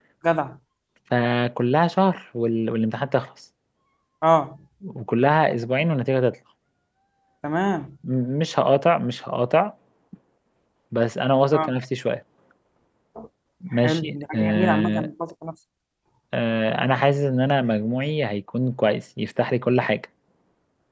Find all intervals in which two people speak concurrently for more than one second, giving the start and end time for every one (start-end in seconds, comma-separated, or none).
13.8-15.1